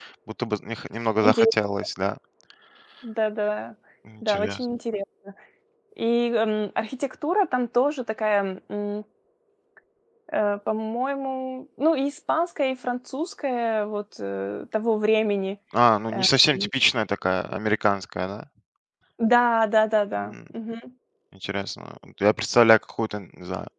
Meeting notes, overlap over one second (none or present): none